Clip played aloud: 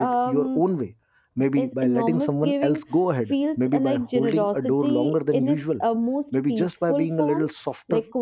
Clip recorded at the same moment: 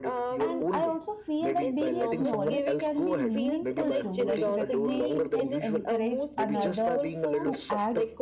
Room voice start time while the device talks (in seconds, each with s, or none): 0.4 s